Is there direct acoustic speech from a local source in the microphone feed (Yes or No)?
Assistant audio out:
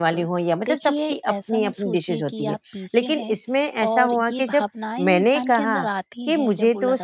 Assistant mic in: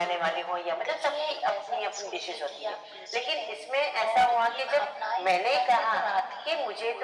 No